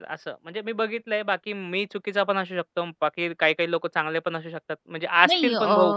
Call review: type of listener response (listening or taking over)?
taking over